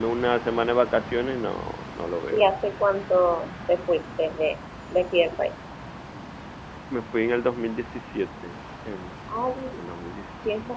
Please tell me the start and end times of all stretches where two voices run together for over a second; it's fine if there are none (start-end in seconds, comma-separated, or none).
none